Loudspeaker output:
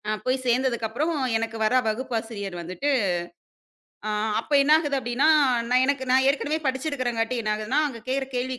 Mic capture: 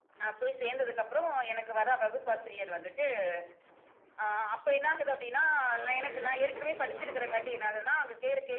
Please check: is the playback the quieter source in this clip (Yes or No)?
No